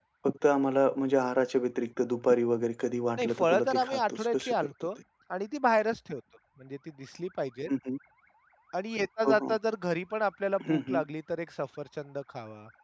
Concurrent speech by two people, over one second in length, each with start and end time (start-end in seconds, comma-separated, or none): 3.2-4.7